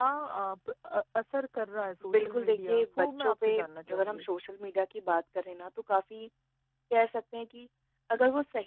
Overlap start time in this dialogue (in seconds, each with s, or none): 2.0 s